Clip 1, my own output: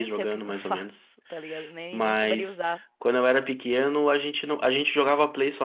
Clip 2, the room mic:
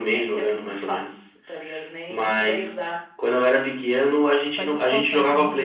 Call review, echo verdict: present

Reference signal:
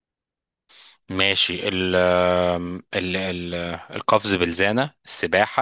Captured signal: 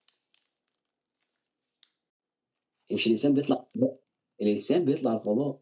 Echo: none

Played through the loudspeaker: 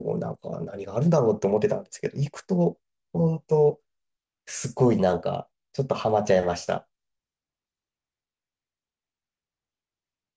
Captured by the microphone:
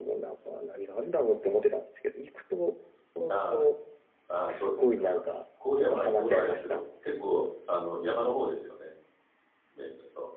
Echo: present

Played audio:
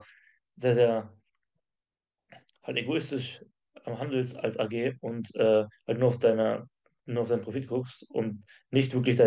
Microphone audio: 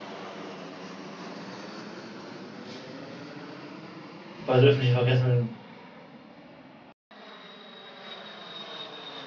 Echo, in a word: none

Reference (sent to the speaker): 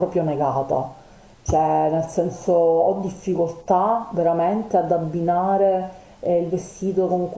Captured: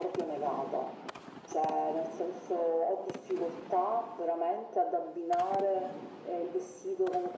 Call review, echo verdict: present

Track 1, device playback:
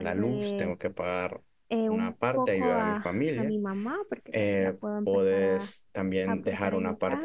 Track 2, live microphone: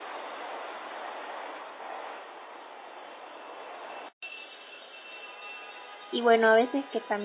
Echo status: none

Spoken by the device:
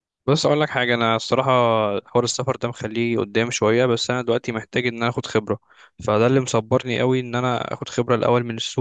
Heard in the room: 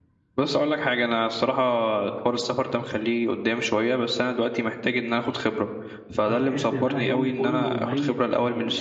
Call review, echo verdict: present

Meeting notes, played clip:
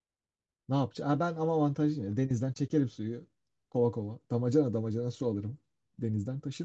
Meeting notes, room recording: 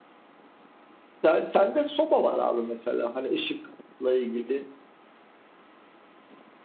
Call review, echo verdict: none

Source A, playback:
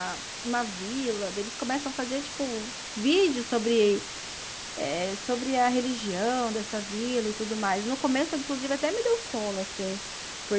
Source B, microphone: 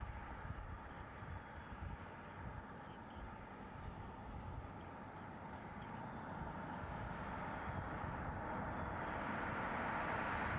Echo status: none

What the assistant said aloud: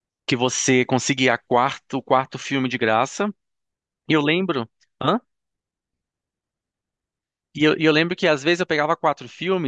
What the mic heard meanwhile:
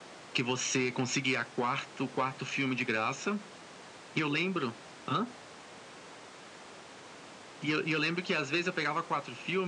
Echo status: present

